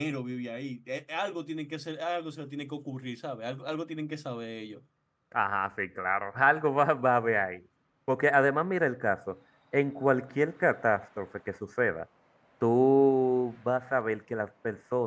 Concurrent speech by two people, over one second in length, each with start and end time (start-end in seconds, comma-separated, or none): none